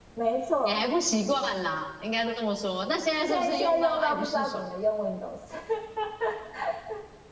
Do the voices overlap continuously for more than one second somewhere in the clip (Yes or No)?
Yes